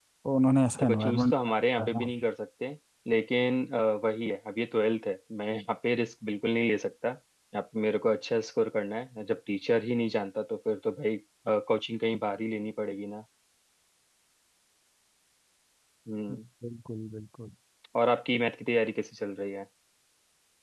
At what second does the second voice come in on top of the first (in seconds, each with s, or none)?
0.8 s